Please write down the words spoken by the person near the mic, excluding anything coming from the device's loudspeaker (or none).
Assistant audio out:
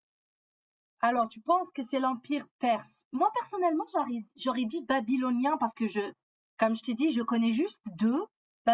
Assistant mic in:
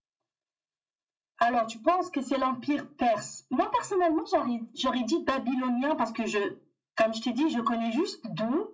none